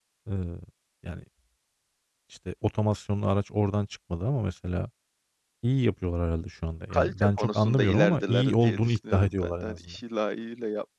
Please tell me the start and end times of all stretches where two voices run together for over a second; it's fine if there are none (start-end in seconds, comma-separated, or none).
6.9-10.0